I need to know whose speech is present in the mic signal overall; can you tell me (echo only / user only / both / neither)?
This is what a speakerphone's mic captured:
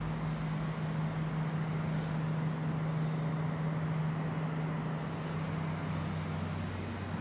neither